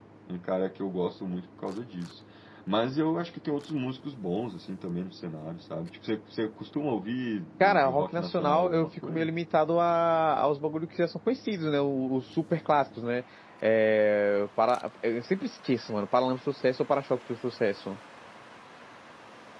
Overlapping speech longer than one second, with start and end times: 7.6-9.3

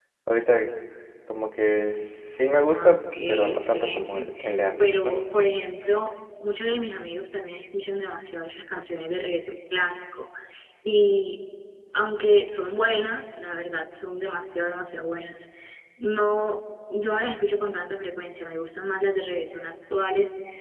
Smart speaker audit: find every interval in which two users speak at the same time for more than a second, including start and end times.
2.7-4.3

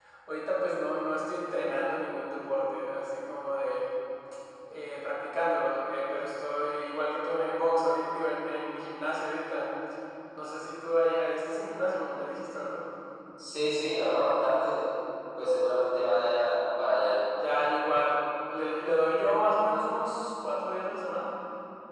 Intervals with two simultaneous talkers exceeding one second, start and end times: none

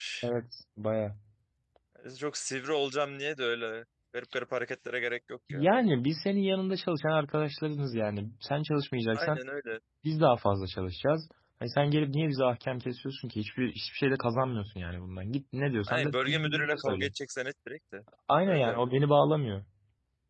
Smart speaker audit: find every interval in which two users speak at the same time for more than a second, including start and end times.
15.9-17.1

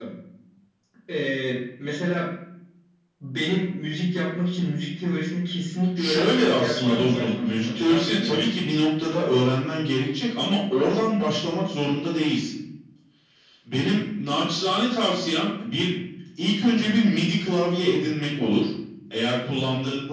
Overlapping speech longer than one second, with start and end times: 6.0-8.6

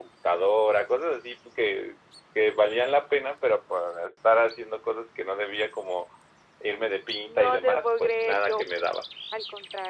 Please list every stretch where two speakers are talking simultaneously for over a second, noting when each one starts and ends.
7.2-8.6

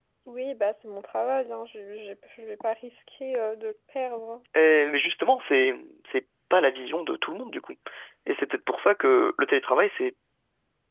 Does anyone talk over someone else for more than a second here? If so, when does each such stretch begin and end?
none

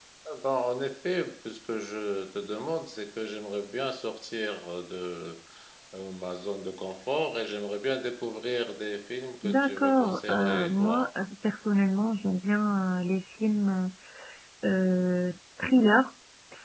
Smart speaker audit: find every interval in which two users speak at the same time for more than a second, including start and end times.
9.4-11.1

